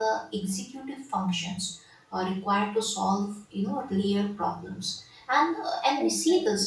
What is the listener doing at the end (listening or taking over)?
listening